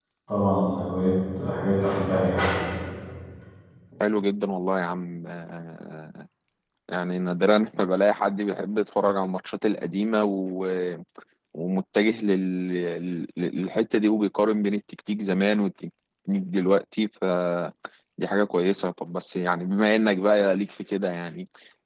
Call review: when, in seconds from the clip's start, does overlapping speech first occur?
none

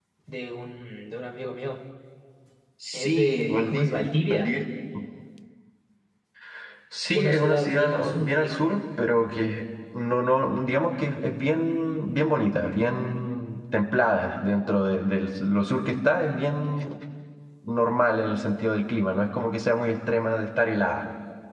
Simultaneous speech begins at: 2.9 s

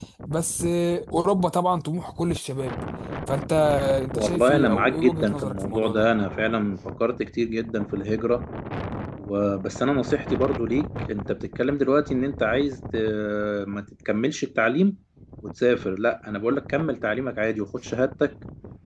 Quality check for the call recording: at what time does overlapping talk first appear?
4.1 s

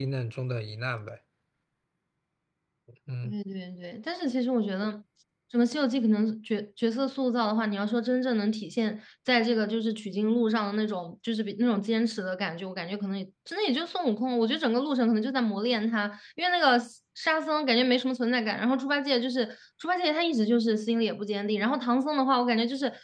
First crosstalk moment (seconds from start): none

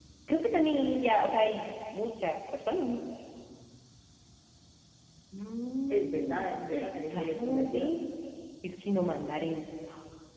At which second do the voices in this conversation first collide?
5.9 s

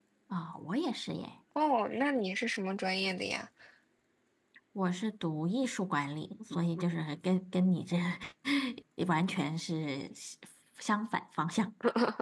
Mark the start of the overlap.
none

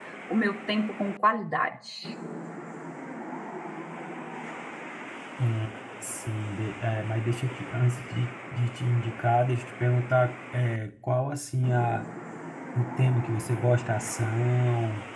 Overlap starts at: none

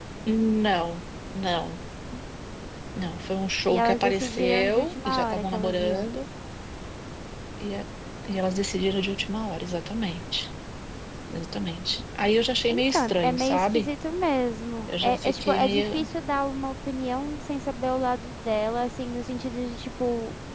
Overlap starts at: 3.7 s

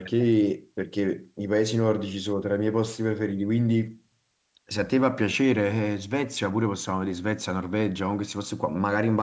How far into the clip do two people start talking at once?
none

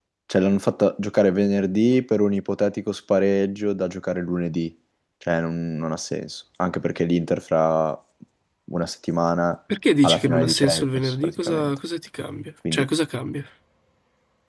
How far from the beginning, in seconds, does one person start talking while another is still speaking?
10.0 s

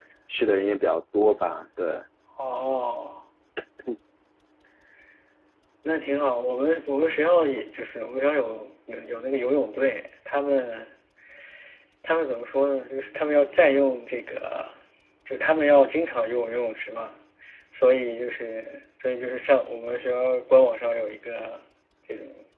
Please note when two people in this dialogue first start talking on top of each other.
none

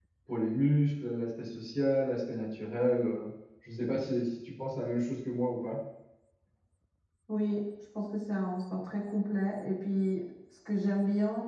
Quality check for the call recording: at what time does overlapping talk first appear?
none

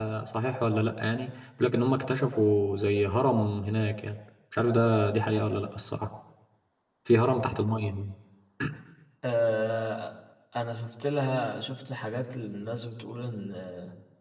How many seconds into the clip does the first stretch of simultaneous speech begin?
none

